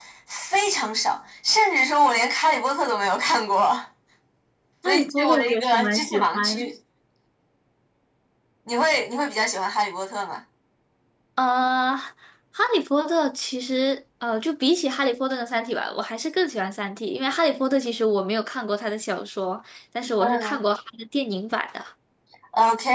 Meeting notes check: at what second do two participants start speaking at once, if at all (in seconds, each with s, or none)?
4.9 s